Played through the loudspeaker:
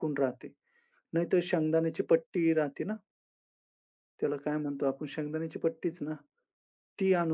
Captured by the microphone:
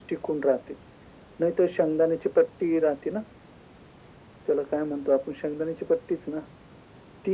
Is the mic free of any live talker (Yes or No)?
Yes